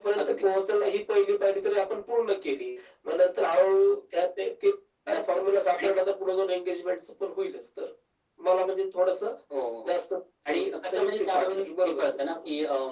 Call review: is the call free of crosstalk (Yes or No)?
No